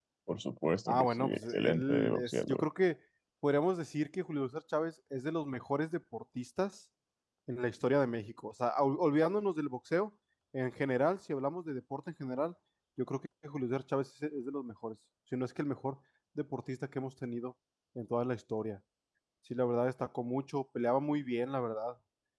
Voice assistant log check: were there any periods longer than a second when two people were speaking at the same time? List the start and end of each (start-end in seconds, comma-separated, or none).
0.9-2.6